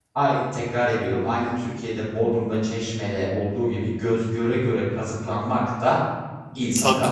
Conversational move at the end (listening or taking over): taking over